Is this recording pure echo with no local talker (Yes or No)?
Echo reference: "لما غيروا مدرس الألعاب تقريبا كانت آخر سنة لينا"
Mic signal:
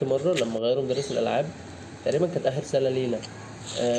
Yes